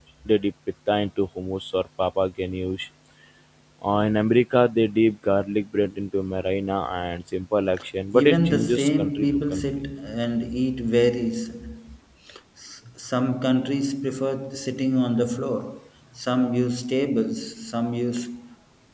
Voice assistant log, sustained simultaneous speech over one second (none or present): present